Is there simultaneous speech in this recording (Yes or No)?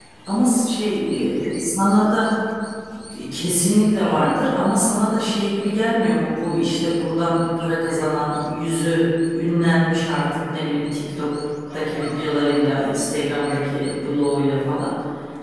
No